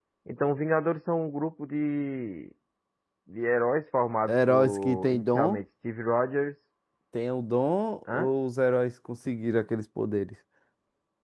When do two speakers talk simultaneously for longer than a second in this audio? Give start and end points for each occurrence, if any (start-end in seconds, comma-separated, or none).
4.2-5.6